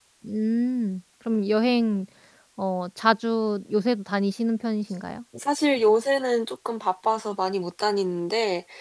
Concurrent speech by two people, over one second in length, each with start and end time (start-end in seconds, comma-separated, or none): none